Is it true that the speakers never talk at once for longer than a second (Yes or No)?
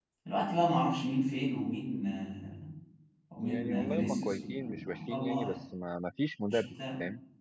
No